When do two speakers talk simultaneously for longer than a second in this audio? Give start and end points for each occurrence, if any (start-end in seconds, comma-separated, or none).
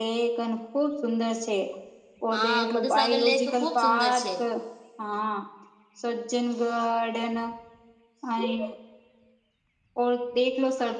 2.3-4.2